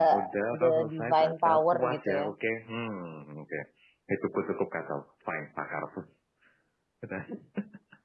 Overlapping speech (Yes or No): Yes